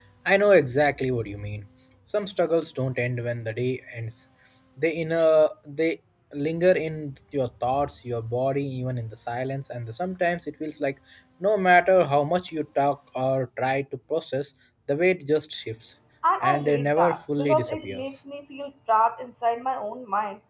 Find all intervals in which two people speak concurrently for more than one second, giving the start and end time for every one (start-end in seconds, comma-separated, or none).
16.4-18.0